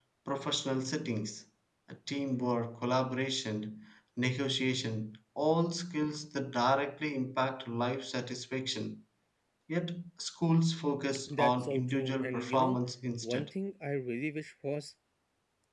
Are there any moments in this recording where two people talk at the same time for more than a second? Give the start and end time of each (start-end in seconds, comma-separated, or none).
11.4-12.7